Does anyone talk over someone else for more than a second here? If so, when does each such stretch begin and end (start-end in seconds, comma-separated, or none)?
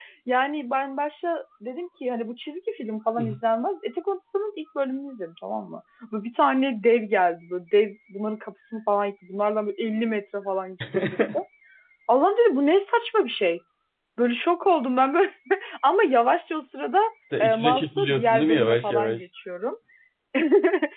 17.4-19.2